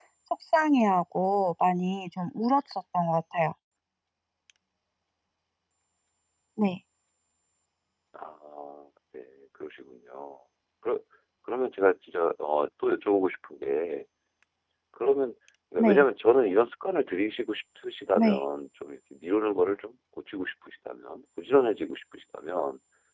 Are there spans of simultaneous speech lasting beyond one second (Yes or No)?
No